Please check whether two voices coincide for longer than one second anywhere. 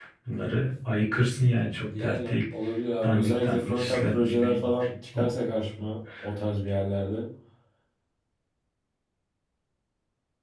Yes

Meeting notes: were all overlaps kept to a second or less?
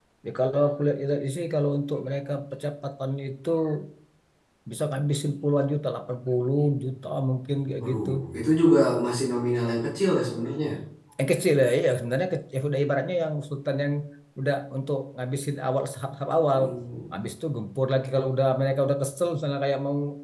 Yes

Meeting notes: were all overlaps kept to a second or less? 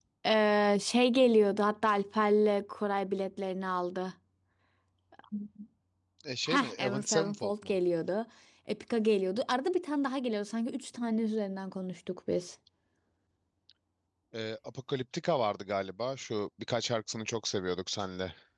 No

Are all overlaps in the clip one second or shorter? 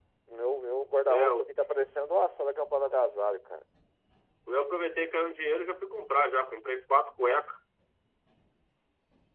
Yes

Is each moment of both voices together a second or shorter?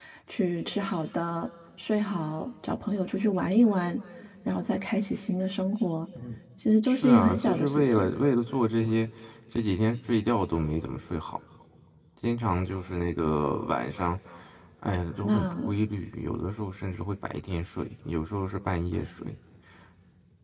No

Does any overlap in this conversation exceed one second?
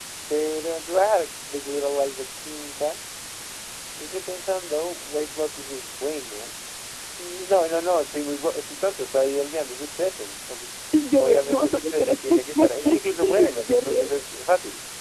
Yes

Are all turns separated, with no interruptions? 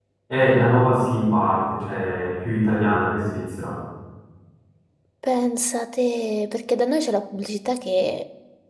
Yes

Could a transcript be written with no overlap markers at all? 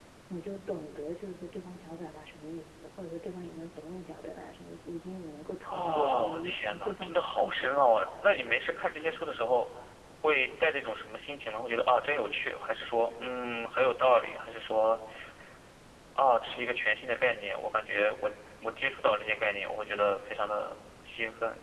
No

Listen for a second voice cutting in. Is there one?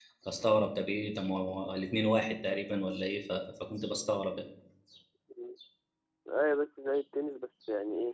No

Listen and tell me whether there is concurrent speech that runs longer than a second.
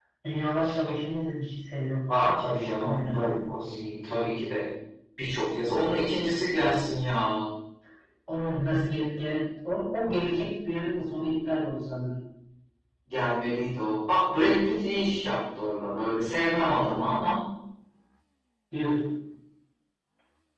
Yes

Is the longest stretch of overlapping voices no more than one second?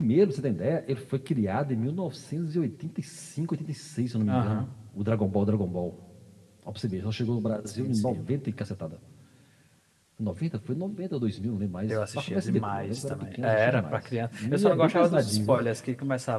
No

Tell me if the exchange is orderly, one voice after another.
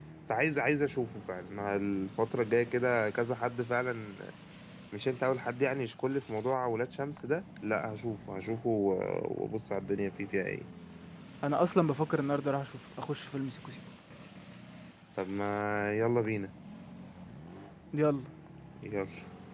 Yes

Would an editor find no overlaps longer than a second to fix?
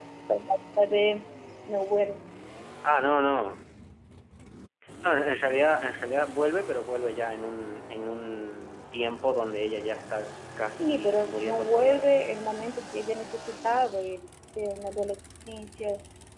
No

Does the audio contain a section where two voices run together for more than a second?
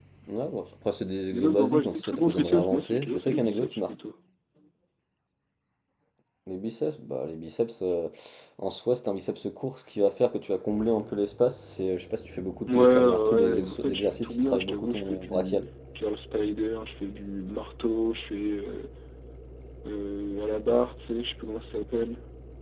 Yes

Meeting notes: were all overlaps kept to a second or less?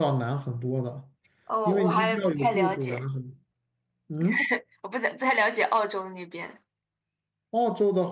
No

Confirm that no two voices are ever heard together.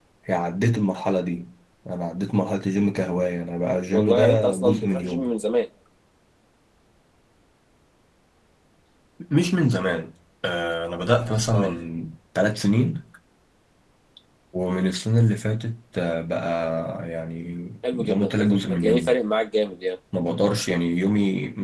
No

